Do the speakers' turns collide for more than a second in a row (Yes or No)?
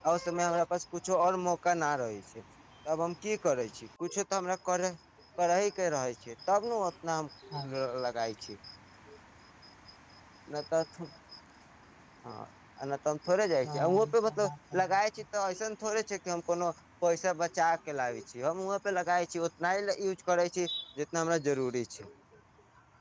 Yes